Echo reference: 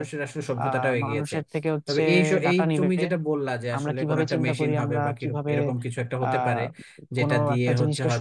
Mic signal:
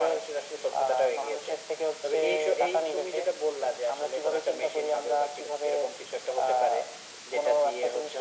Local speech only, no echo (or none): none